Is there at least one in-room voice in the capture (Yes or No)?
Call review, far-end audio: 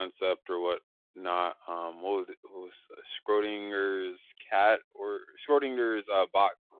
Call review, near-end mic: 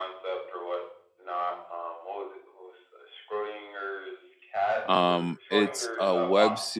Yes